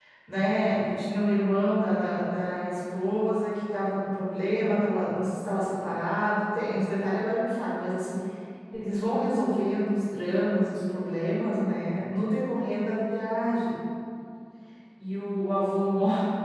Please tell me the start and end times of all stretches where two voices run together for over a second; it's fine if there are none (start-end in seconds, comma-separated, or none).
none